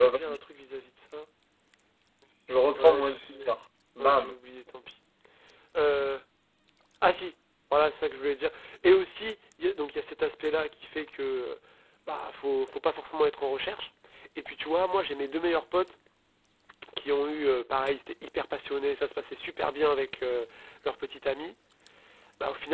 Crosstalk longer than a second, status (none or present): none